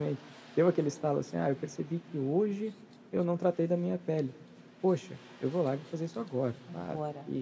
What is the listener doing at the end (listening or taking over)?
listening